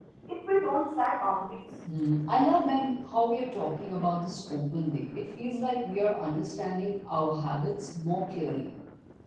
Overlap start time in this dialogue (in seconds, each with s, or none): none